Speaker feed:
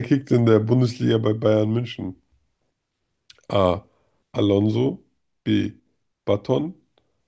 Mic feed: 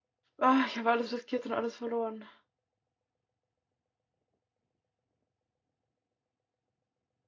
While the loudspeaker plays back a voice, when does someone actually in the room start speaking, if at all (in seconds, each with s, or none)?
0.4 s